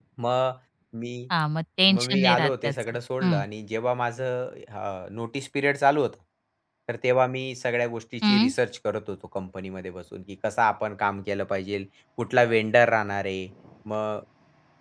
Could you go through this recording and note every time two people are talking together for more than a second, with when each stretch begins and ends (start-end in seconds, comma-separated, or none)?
1.9-3.4